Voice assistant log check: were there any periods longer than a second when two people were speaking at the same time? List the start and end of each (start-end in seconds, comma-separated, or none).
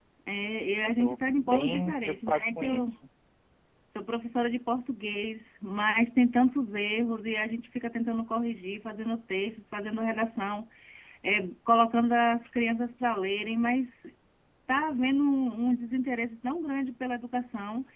0.8-3.0